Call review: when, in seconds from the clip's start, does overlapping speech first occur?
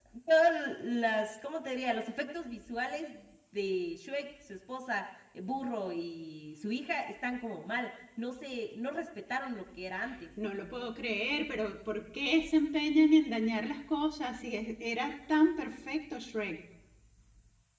none

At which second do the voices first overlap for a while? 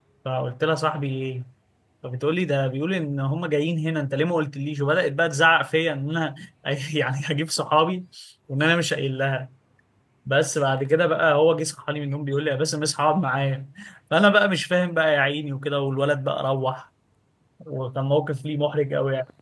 none

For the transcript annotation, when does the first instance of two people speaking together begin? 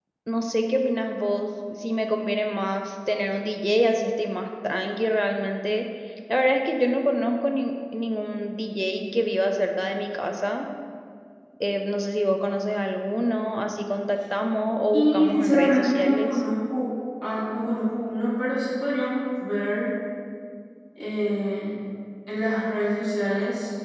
14.9 s

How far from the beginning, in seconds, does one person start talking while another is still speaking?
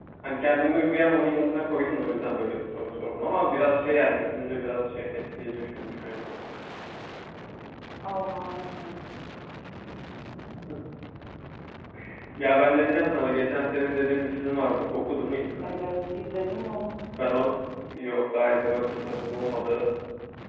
none

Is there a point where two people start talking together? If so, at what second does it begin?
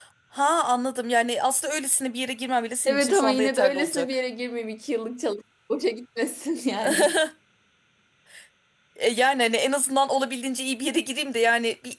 2.9 s

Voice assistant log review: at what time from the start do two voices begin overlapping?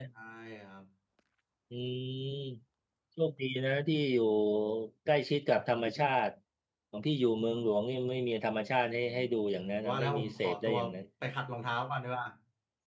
9.0 s

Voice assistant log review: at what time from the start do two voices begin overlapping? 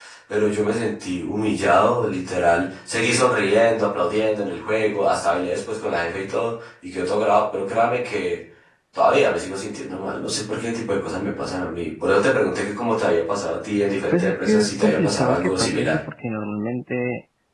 14.1 s

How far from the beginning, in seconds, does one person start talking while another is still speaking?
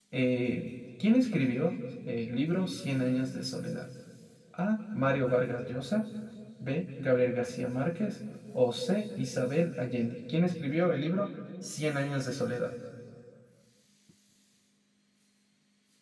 none

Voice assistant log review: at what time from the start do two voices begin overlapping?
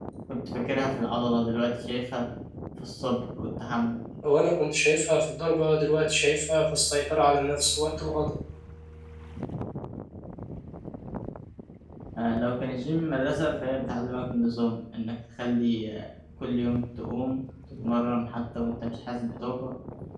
none

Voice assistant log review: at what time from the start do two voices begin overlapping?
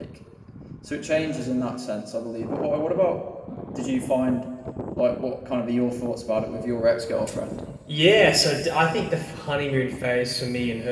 none

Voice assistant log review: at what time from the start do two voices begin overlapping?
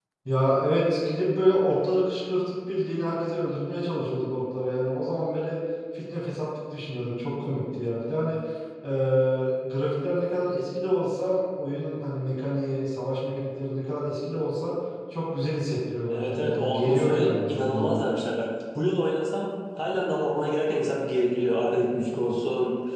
16.1 s

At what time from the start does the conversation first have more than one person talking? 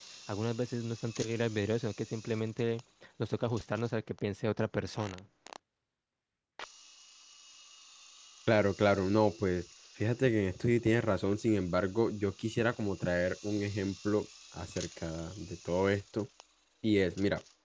none

